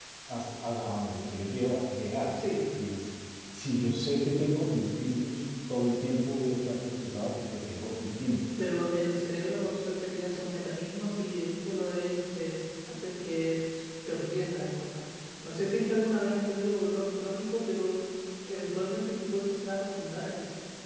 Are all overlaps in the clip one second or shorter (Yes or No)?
Yes